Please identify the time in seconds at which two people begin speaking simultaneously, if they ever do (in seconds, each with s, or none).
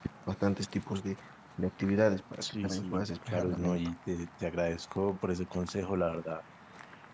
2.4 s